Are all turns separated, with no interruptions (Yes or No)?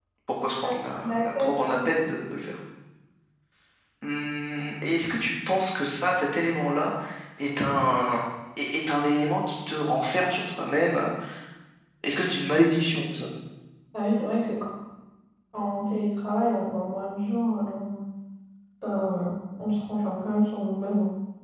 No